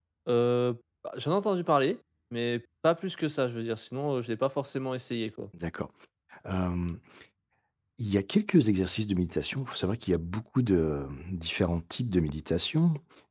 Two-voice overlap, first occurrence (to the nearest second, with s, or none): none